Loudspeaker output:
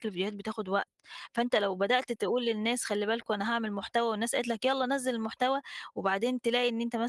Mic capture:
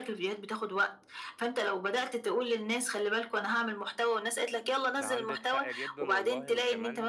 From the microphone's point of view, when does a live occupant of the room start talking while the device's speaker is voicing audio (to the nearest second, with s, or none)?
5 s